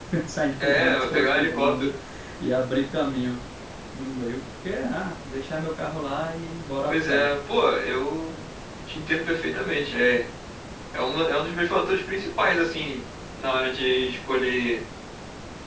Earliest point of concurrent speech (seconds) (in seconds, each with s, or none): 0.6 s